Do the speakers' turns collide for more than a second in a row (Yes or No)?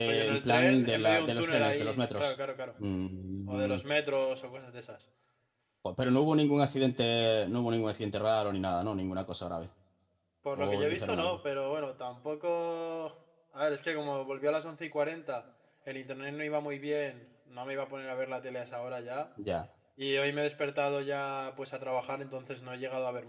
Yes